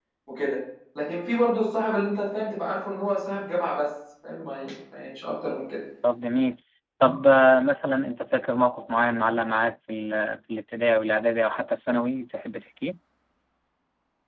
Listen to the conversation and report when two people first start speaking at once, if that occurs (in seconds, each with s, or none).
none